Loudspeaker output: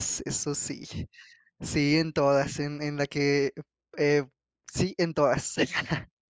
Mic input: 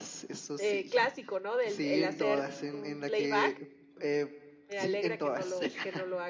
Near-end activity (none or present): present